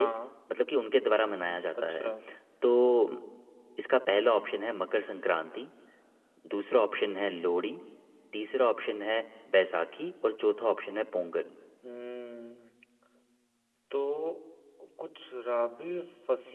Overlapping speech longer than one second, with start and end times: none

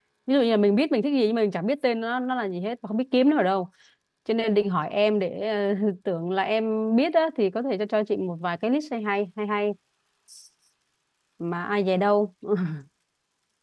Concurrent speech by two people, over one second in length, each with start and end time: none

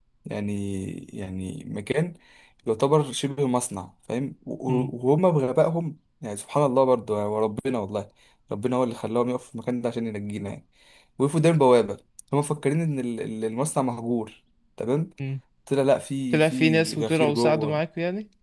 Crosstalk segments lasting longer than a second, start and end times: 16.3-17.8

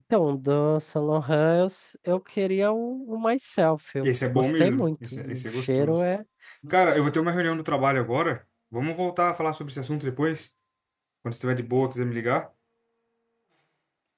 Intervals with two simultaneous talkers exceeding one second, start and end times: 4.0-6.0

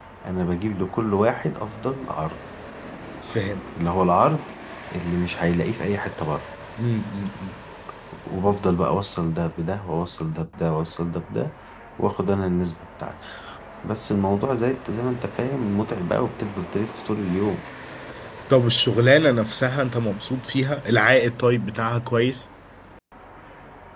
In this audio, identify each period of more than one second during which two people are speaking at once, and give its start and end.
none

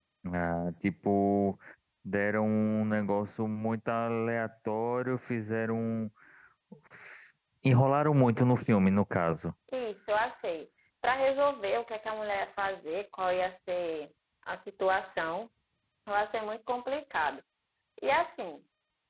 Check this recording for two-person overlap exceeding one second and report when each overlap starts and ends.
none

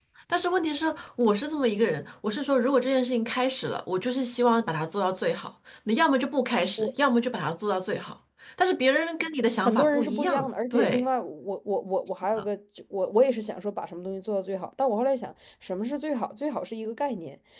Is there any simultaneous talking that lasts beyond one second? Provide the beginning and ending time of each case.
9.6-11.0

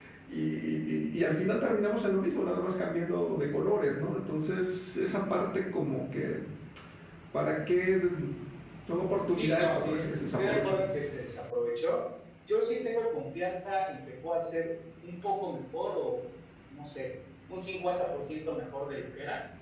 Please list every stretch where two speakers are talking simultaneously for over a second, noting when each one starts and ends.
9.3-10.8

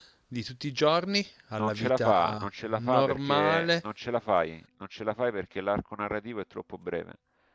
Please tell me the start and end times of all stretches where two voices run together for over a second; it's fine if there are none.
1.6-3.8

